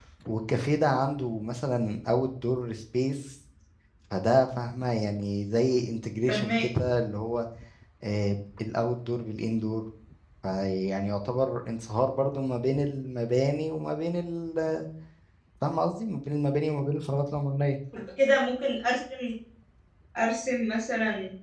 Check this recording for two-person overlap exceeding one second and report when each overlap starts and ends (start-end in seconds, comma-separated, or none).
none